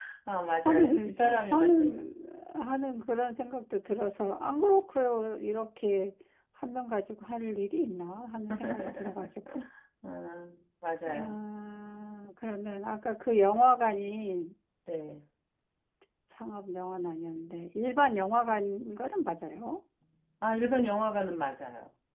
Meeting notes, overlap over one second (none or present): present